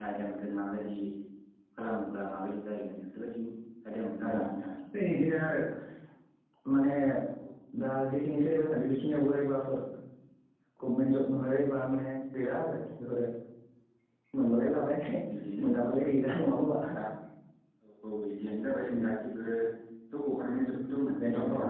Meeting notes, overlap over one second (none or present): none